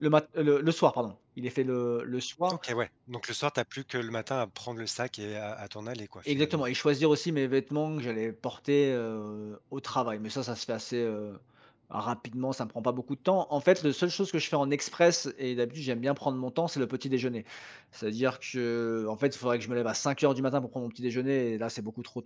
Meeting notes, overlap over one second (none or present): none